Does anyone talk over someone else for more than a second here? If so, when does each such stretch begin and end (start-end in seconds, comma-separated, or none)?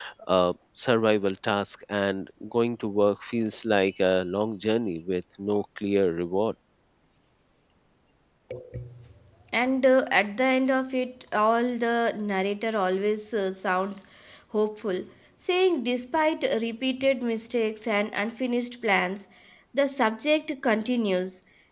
none